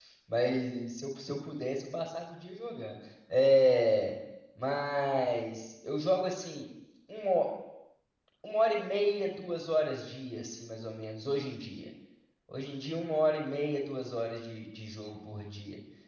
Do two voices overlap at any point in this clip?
No

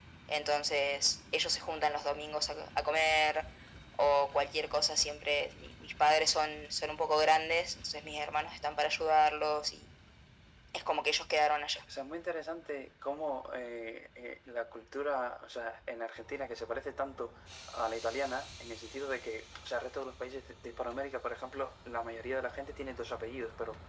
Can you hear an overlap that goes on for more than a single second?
No

